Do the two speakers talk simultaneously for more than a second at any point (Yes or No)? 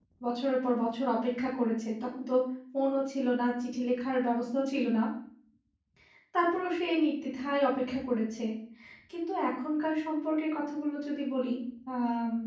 No